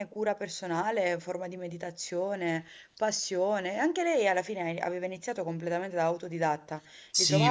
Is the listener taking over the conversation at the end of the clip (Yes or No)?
Yes